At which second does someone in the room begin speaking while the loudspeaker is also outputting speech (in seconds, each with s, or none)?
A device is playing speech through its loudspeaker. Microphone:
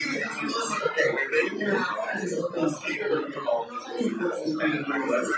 none